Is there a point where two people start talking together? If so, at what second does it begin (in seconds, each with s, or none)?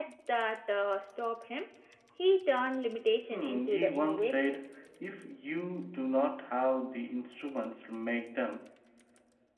3.3 s